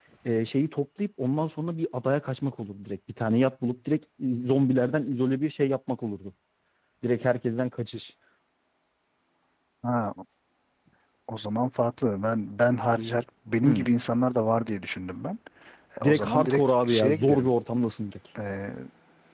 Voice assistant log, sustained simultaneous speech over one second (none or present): present